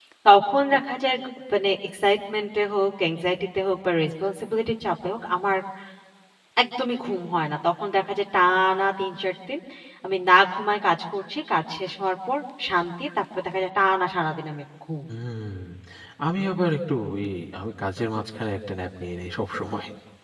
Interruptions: none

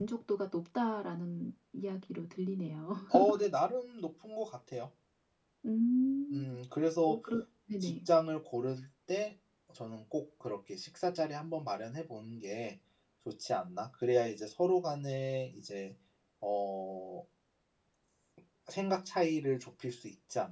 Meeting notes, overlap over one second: none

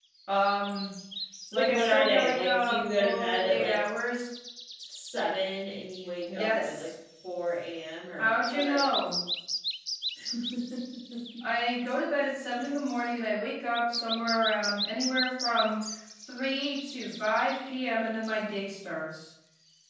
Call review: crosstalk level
present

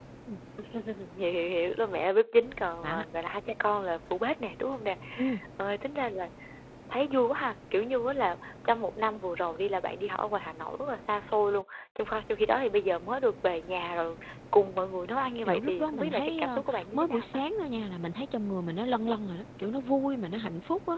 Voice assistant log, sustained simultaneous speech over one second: present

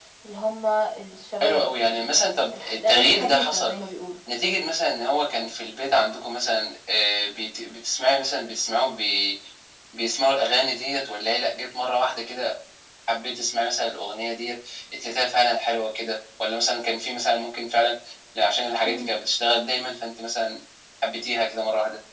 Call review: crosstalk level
present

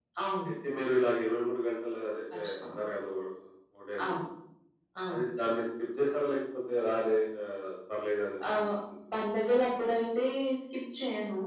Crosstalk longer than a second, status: none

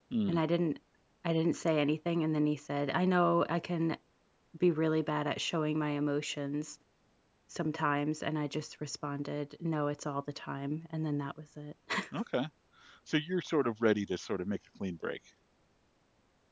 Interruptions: none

